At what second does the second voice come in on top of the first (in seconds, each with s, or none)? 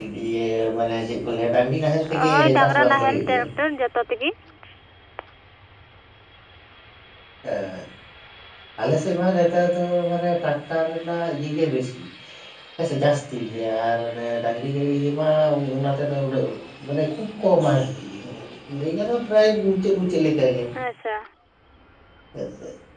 2.1 s